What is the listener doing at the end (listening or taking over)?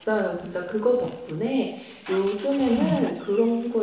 listening